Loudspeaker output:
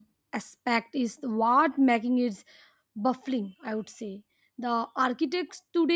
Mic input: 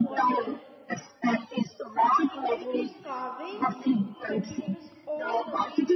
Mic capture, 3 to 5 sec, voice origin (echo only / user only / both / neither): both